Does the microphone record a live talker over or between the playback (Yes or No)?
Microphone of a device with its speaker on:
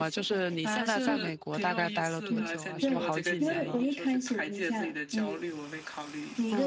Yes